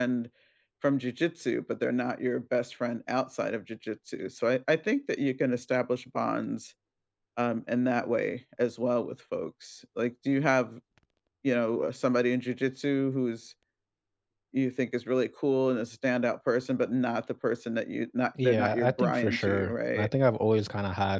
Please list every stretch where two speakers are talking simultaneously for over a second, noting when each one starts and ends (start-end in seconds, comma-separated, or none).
18.4-20.1